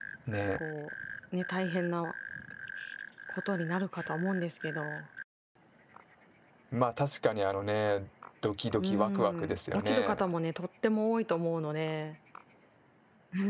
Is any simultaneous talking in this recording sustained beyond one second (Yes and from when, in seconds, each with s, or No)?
Yes, from 8.8 s